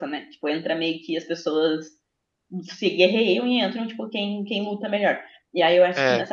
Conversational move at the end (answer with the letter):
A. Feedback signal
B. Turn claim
A